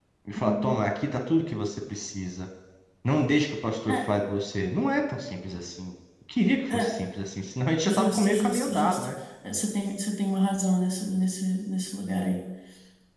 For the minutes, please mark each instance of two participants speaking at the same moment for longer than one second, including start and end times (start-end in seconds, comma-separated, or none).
7.8-9.1